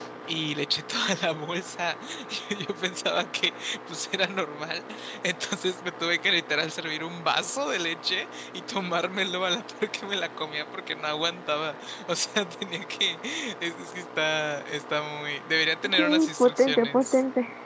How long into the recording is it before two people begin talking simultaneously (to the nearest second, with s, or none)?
16 s